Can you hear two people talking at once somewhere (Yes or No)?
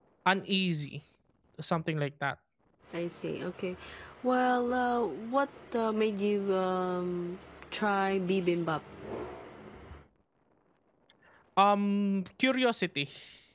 No